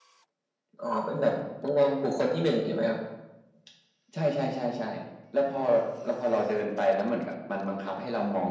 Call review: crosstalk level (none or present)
none